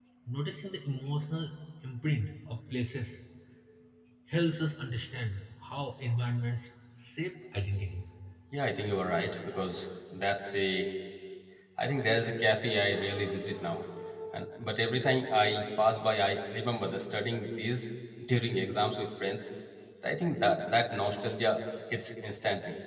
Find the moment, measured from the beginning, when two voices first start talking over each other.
none

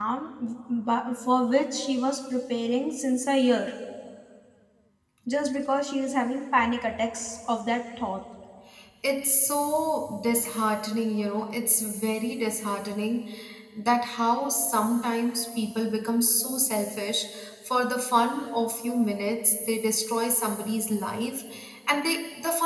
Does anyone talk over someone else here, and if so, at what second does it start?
none

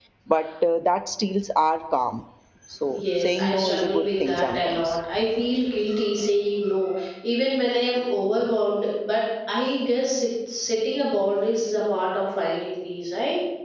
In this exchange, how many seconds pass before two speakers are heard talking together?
2.9 s

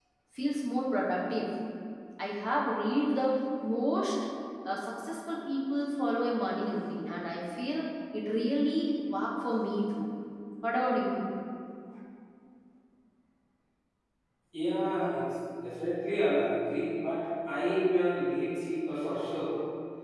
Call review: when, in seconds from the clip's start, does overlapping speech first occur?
none

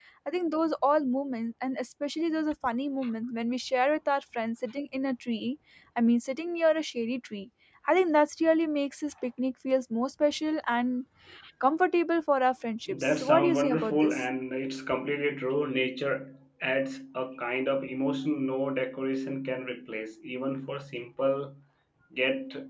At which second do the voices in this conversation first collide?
12.9 s

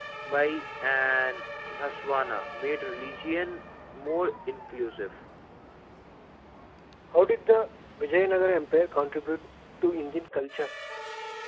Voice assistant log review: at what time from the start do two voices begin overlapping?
none

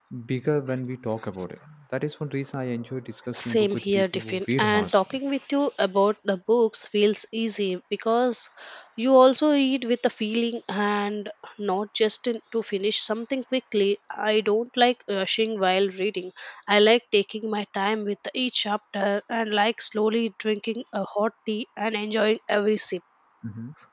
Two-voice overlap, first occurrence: 3.3 s

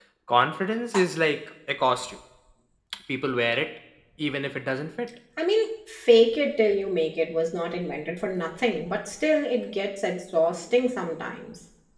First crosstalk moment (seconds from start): none

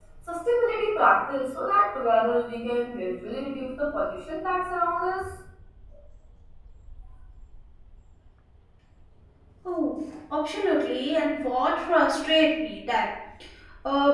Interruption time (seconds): none

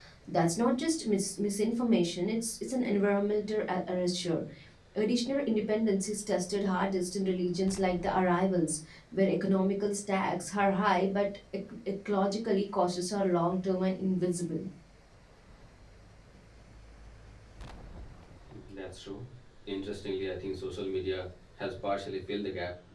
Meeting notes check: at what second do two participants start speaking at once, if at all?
none

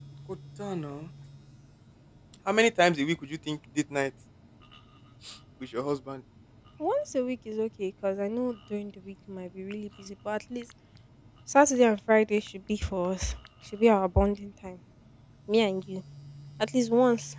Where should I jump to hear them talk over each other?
none

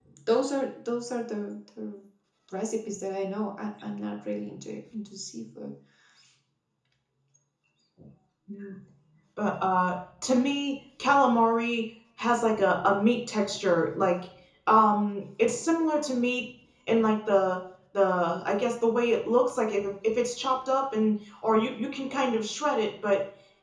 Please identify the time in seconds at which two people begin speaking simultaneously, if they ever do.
none

